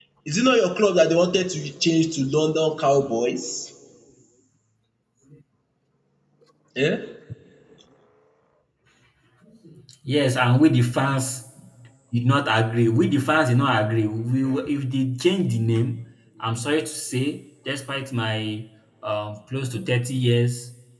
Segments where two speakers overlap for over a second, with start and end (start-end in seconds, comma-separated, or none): none